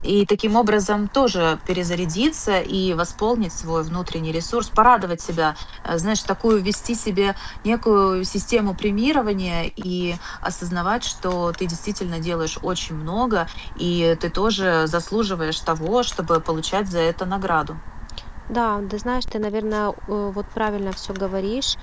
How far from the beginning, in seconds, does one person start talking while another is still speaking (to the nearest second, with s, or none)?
none